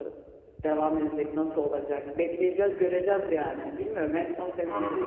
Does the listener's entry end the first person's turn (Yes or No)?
No